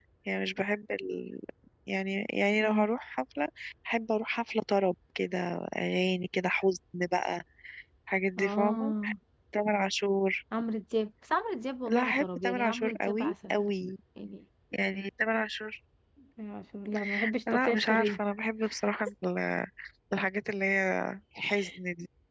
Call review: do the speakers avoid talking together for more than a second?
No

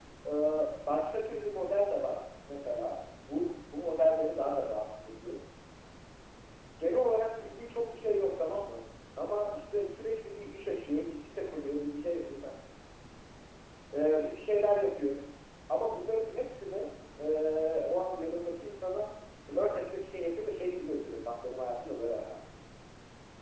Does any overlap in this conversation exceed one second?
No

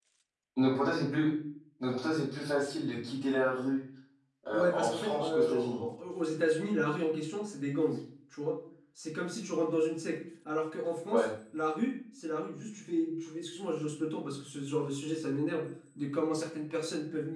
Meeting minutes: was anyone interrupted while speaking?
Yes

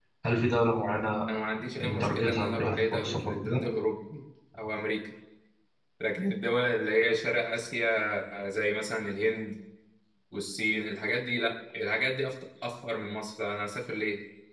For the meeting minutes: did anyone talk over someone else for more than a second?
Yes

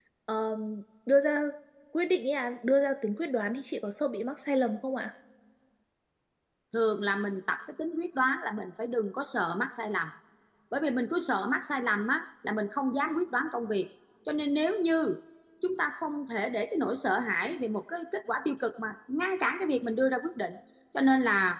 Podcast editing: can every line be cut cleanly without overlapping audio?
Yes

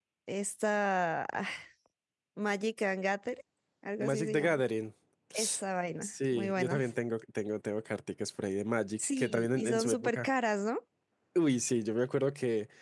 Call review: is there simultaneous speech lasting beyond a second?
Yes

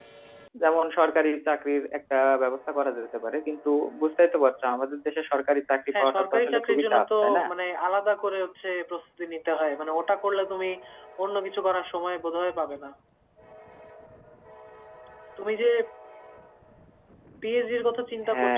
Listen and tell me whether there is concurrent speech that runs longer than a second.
Yes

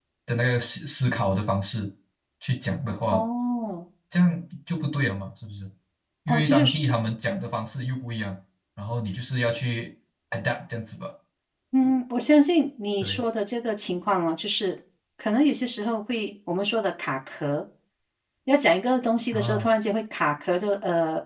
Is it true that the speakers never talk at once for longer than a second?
Yes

